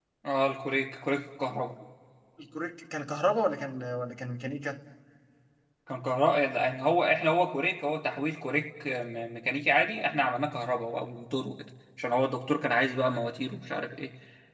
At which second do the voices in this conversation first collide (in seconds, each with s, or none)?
none